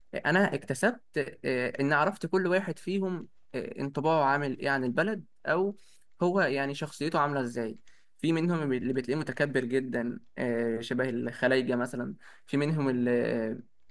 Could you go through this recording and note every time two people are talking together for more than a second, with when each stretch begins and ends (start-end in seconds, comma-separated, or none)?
none